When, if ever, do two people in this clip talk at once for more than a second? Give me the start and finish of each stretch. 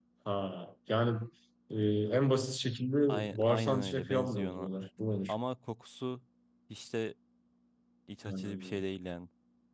3.4-4.7

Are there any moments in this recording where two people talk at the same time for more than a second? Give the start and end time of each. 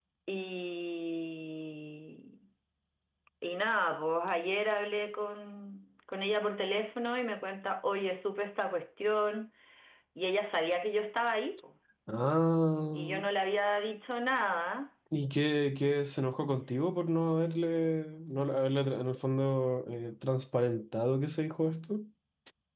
none

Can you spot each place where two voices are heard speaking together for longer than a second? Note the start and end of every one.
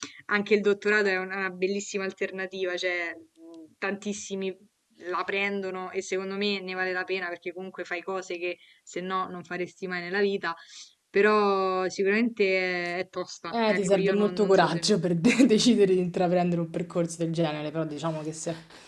13.5-14.8

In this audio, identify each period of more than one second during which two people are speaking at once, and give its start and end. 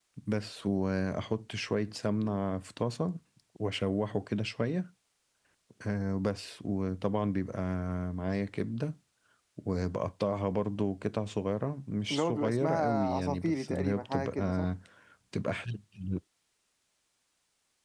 12.1-14.7

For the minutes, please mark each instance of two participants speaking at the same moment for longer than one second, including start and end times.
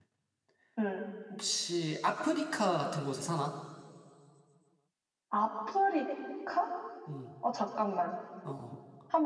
none

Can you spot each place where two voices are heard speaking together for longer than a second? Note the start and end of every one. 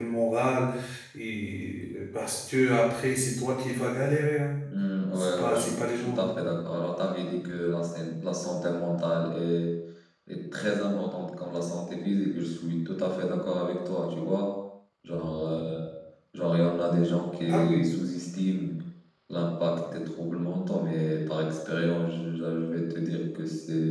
5.2-6.4

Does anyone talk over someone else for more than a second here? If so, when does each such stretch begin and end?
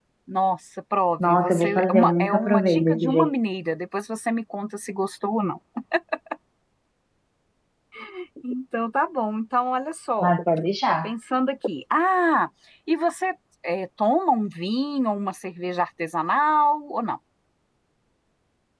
1.2-3.3

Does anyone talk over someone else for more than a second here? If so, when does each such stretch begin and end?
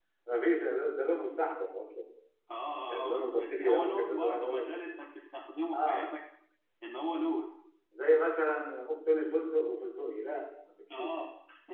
3.0-4.8

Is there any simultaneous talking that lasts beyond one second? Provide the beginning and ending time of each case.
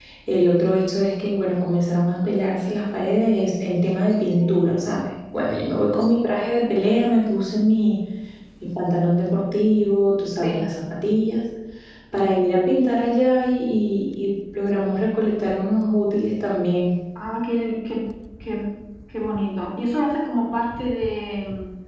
none

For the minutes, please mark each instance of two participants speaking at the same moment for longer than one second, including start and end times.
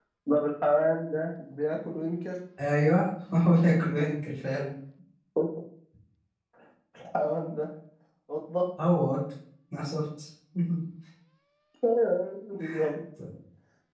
none

